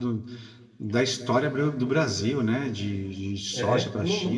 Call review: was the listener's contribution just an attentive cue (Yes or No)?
No